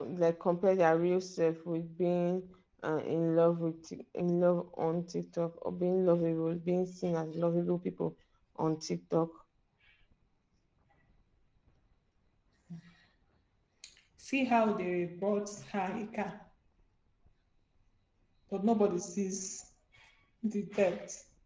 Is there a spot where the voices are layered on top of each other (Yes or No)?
No